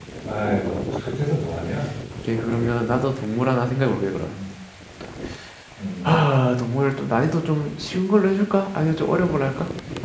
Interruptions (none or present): none